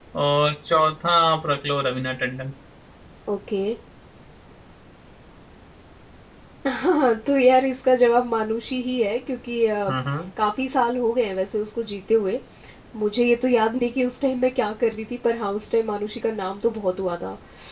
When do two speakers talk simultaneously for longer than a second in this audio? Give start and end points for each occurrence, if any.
none

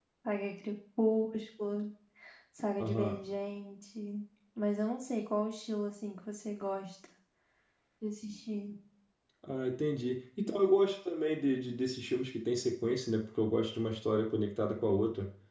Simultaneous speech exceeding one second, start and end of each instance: none

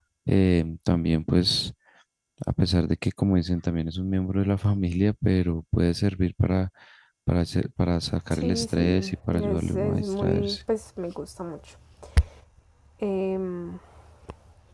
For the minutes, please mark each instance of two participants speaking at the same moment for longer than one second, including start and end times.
8.3-10.6

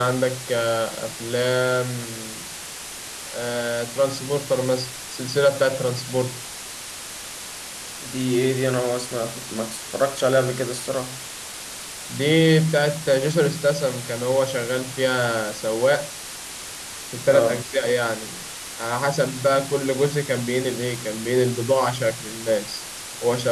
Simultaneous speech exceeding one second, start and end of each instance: none

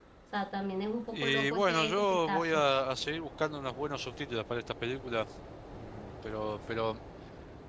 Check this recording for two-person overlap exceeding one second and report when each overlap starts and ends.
1.1-2.6

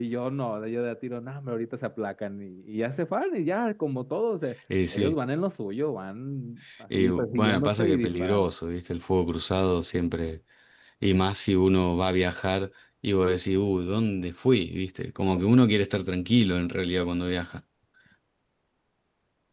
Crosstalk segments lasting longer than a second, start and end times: 7.0-8.5

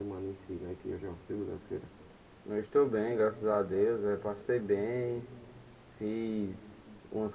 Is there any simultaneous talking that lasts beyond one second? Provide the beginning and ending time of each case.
none

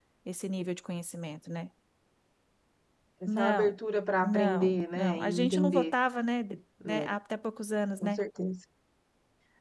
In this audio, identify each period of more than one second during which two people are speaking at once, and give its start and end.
4.2-5.9

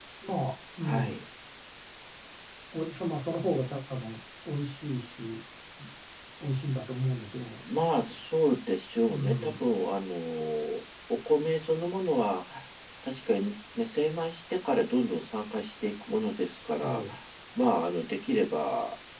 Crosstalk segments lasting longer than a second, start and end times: none

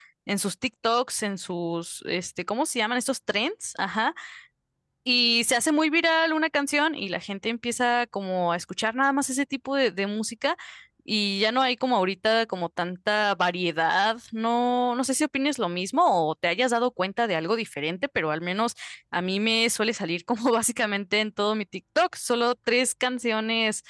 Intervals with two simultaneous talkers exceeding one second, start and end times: none

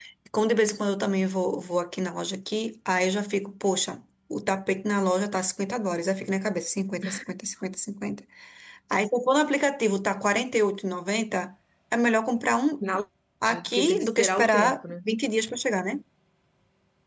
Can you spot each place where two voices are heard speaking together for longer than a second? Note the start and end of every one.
13.4-14.8

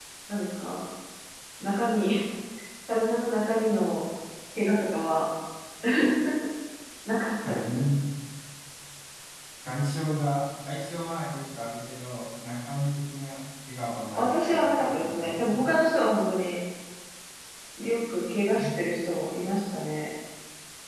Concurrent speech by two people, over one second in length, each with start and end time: 14.1-15.6

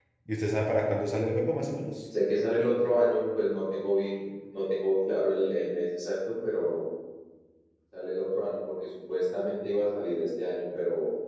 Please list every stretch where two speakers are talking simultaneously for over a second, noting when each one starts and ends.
none

